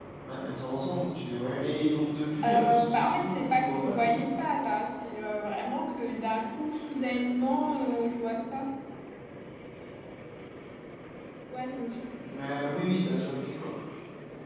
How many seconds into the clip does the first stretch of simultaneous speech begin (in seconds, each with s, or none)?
2.4 s